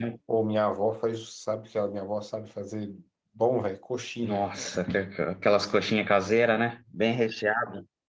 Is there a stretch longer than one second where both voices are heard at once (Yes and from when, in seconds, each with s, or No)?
No